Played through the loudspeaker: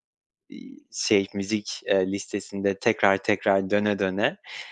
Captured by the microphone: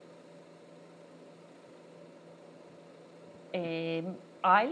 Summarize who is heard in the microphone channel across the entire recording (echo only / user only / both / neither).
user only